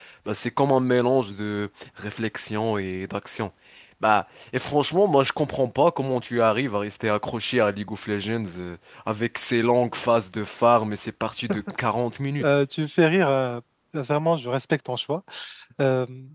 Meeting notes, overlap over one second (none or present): none